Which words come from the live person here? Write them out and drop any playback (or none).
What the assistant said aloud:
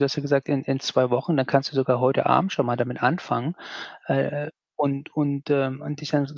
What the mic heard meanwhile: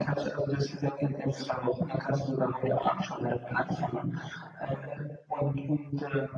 none